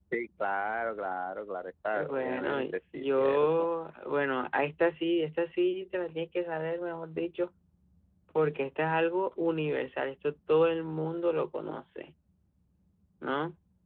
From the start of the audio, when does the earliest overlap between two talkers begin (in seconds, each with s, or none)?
1.9 s